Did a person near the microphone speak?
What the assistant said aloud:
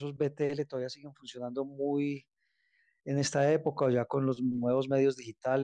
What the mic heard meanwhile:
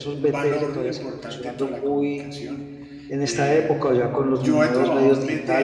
Yes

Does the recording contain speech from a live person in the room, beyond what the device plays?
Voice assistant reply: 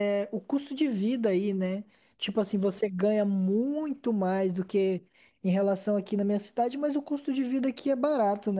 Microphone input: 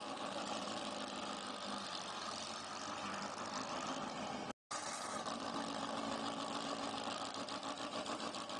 No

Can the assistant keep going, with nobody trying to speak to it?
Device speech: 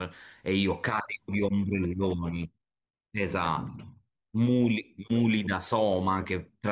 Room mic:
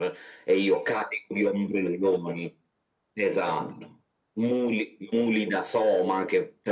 Yes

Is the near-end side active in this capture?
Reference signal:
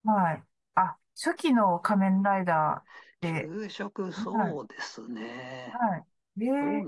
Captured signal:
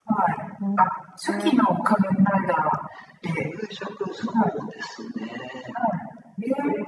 Yes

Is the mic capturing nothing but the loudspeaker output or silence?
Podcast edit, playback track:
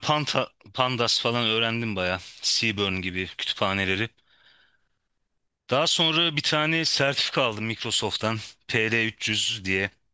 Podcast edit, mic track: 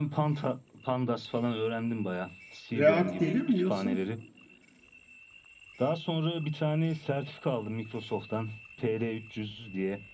No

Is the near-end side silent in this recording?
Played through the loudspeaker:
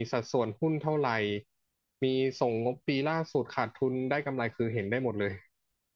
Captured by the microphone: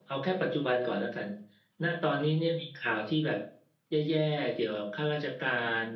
No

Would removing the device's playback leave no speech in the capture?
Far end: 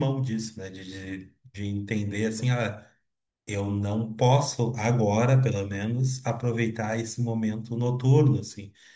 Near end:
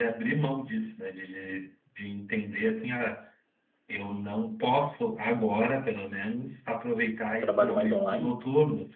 No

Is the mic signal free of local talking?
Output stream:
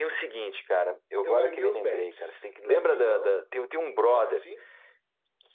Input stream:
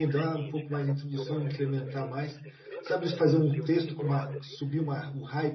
No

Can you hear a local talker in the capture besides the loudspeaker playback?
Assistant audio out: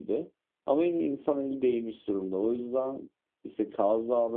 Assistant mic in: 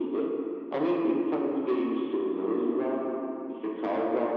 No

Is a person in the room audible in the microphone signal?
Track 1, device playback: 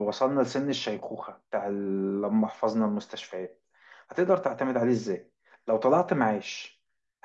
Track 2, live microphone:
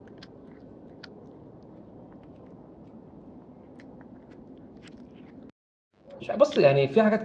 Yes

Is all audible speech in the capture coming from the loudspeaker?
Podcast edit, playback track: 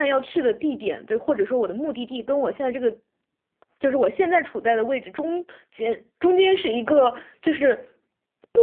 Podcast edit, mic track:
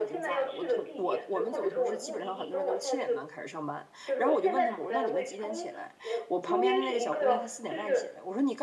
No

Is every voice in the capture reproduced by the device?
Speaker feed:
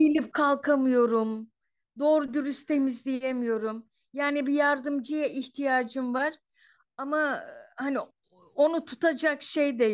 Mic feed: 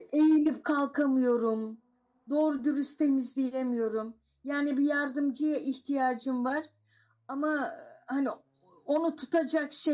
Yes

